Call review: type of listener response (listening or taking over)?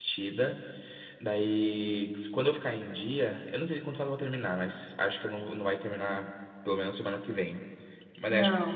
listening